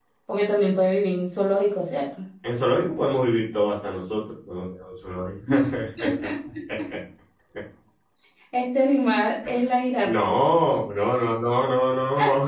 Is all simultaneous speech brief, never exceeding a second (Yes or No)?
Yes